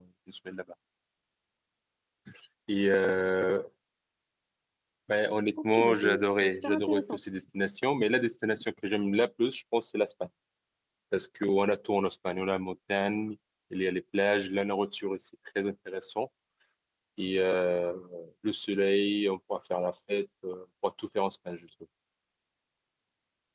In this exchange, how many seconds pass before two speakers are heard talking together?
5.6 s

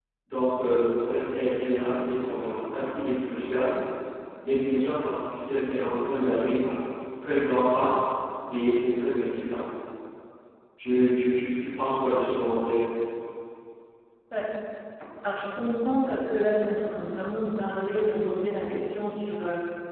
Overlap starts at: none

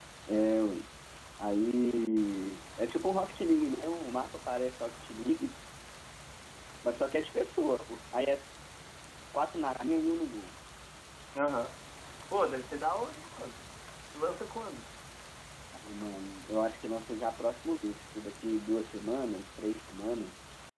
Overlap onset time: none

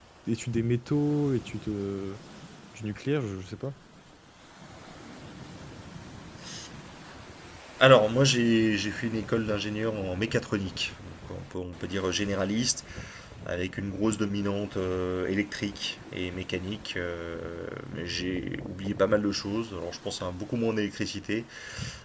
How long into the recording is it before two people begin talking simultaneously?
none

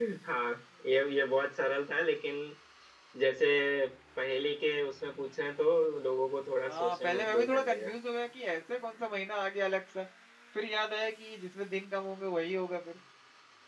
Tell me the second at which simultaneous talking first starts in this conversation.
6.7 s

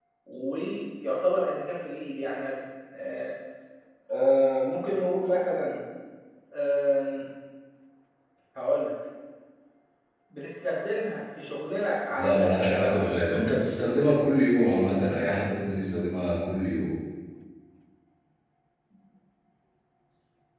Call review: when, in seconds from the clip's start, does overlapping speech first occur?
12.2 s

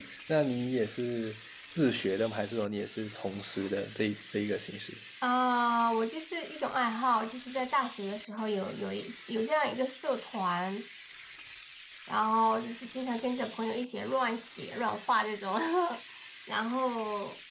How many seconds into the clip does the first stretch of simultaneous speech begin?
none

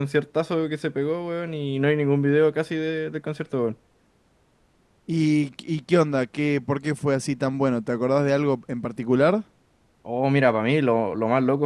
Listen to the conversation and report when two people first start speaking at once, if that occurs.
none

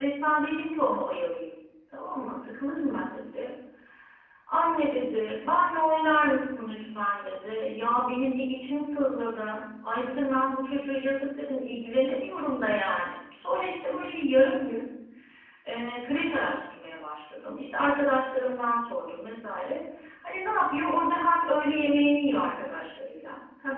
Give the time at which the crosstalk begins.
none

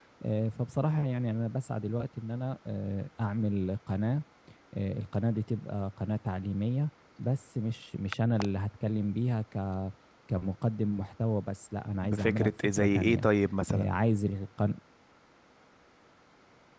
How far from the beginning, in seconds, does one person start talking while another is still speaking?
12.0 s

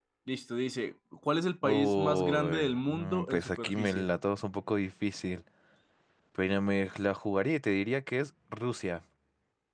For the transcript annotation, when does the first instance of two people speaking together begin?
1.6 s

